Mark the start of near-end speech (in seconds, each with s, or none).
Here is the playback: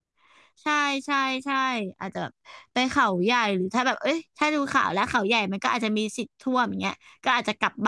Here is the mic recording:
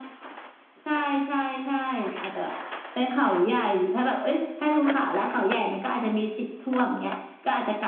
none